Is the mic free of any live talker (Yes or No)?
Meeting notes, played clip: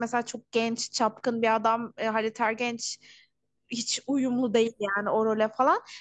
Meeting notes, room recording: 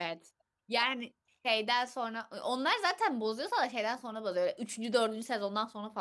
No